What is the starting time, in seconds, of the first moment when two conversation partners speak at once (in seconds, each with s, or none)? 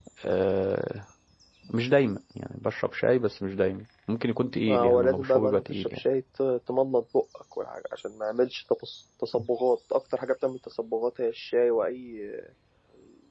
4.7 s